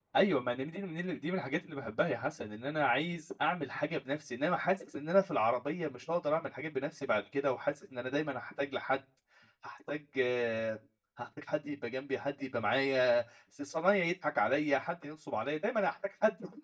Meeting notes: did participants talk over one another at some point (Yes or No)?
No